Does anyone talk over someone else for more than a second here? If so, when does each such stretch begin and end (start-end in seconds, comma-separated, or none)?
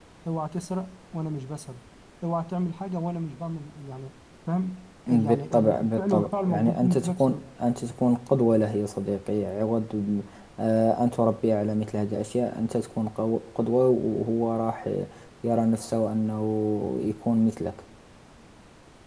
5.1-7.4